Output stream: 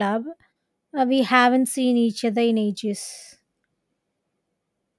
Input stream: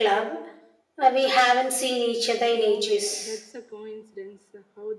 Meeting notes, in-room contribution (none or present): present